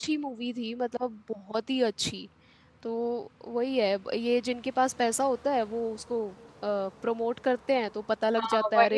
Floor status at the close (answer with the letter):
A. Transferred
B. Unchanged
A